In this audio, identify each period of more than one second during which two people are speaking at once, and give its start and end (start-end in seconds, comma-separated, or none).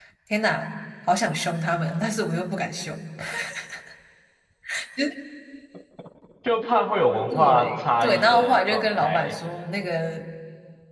7.3-9.3